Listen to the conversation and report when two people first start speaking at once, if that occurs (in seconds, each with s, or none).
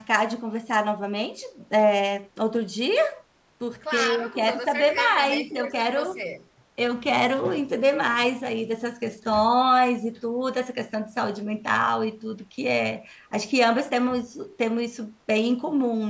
3.9 s